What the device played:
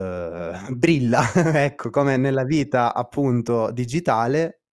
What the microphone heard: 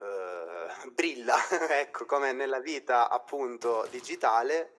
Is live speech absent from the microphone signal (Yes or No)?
Yes